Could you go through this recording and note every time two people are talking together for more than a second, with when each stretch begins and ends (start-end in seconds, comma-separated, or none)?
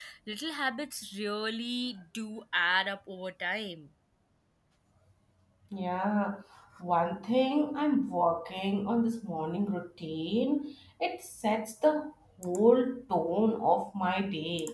none